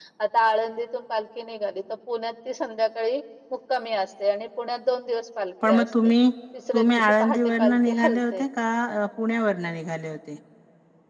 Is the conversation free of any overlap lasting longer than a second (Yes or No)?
No